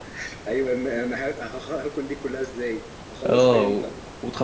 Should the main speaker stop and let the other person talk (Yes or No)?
Yes